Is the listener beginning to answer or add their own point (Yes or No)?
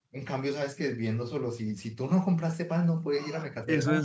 Yes